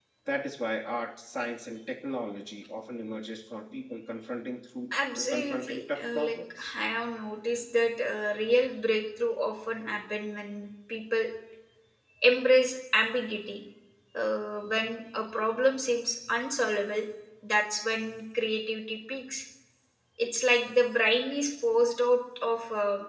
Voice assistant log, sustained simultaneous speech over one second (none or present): present